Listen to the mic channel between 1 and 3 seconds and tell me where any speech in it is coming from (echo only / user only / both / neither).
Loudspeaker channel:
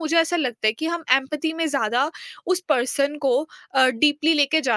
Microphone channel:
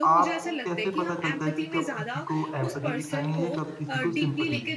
both